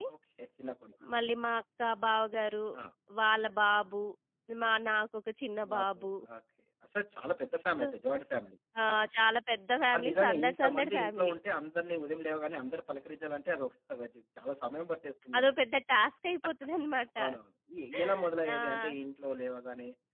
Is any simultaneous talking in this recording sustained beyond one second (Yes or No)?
Yes